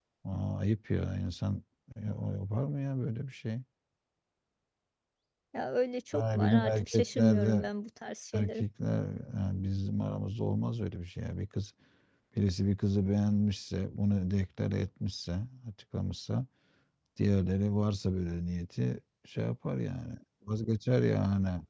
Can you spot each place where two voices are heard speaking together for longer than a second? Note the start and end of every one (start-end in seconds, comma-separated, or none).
6.1-7.7